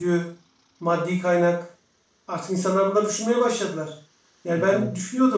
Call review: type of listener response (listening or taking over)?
listening